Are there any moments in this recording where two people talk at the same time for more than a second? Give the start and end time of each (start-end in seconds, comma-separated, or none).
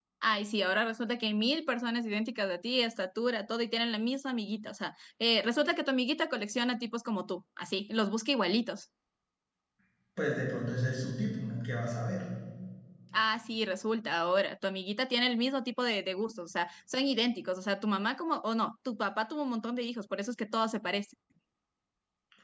none